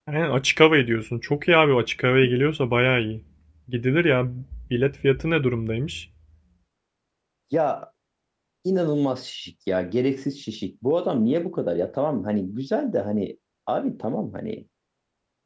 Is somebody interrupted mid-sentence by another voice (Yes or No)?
No